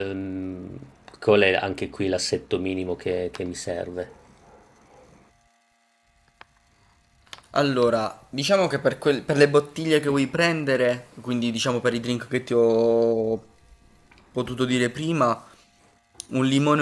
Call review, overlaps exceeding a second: none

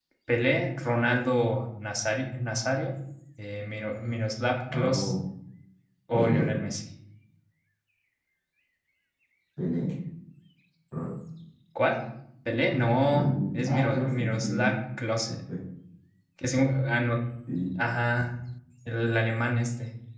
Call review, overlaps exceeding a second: present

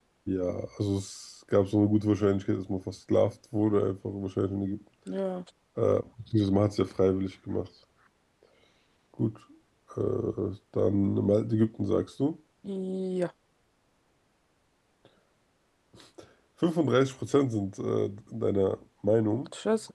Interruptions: none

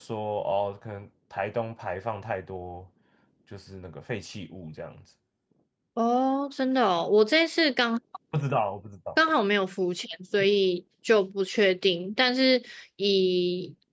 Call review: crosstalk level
none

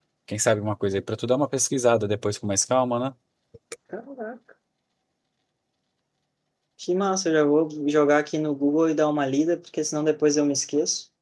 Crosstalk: none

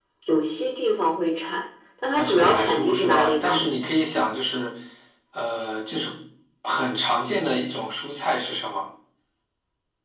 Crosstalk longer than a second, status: present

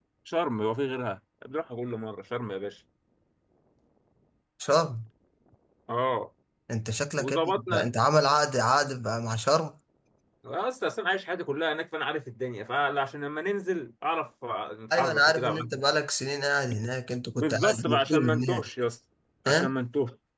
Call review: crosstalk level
present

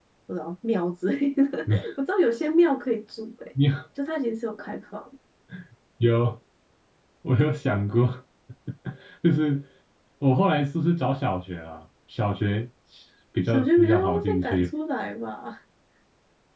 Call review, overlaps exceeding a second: present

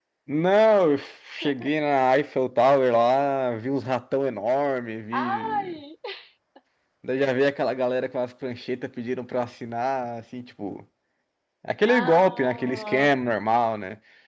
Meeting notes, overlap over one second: present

